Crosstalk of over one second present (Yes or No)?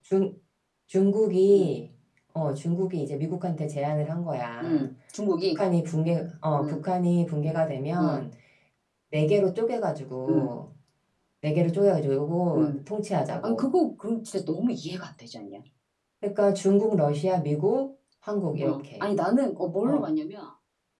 No